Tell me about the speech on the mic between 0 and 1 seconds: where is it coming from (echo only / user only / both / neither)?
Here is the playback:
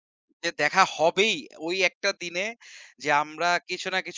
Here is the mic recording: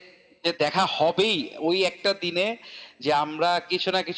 echo only